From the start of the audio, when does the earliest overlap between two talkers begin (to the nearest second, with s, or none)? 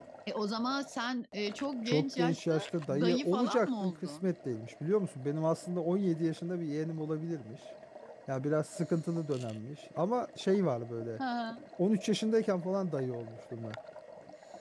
2 s